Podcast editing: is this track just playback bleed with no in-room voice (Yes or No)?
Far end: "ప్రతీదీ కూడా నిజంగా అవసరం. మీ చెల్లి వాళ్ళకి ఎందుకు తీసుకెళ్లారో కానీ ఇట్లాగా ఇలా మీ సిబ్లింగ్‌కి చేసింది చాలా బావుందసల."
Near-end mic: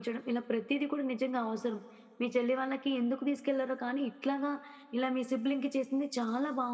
Yes